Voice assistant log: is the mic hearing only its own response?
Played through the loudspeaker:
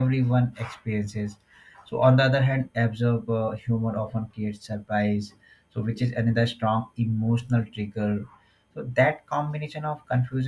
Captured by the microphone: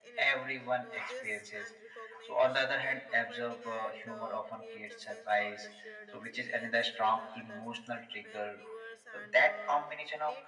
No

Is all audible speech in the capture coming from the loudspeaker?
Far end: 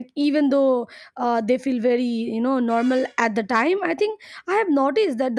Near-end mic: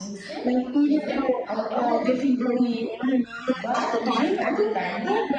No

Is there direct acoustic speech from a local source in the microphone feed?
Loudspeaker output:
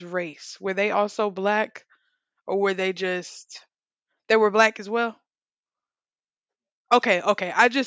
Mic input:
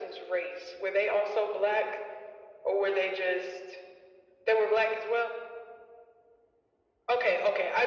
No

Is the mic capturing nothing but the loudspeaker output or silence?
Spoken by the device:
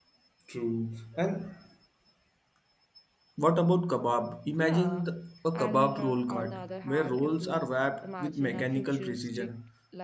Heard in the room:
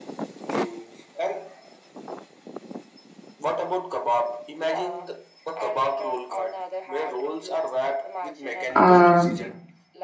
No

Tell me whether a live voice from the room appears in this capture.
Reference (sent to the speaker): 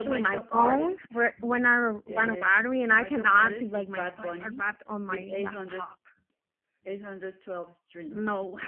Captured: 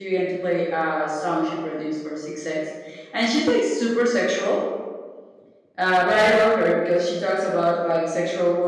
Yes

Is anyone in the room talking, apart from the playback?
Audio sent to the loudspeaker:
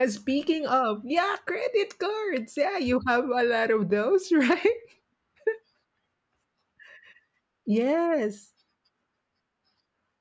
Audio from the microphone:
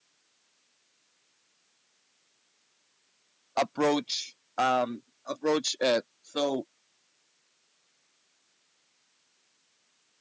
Yes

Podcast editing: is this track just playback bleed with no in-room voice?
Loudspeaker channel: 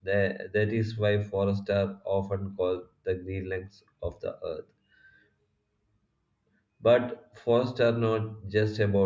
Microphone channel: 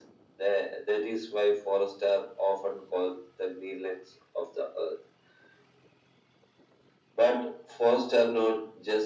Yes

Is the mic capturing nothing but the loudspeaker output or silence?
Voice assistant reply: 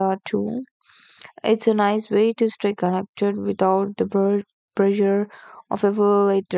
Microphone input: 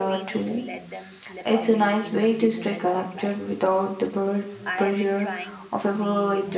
No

